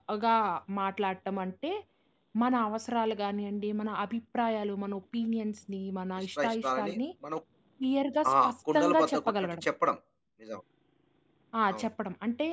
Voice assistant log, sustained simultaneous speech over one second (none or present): present